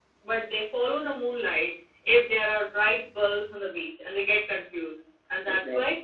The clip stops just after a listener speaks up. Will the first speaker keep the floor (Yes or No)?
Yes